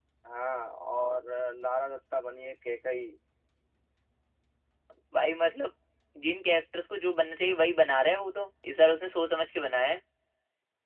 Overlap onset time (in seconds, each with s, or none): none